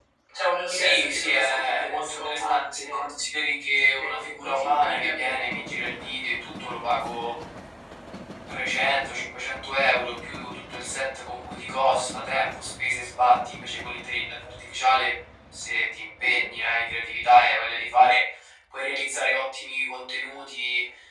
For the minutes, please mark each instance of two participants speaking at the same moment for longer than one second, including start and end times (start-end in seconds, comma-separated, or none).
0.7-3.1, 4.0-6.1